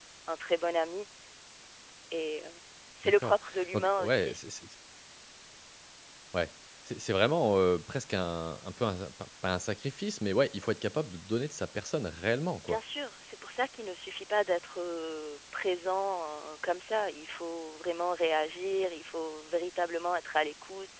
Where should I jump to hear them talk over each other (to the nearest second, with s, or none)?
3 s